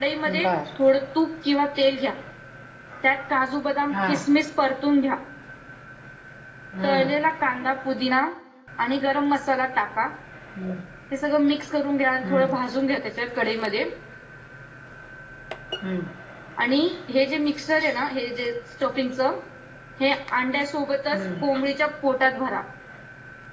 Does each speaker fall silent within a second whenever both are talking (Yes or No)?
Yes